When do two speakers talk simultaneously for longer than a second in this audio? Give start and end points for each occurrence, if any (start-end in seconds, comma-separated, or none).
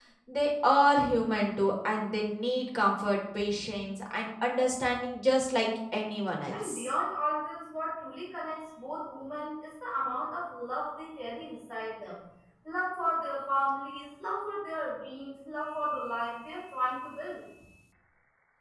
none